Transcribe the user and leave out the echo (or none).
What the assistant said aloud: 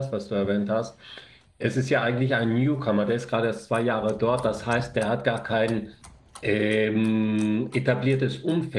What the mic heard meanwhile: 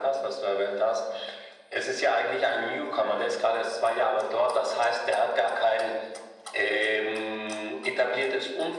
none